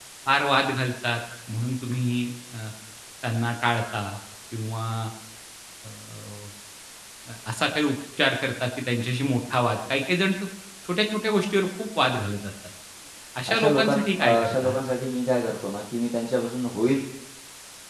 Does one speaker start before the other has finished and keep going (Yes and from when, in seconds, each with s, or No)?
Yes, from 13.5 s